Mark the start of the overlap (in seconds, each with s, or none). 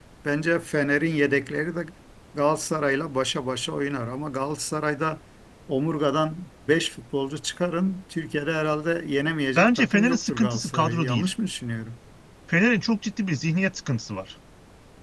9.6 s